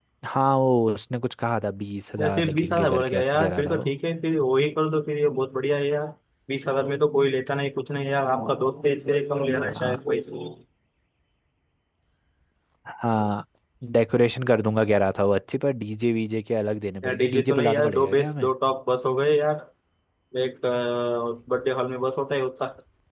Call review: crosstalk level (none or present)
present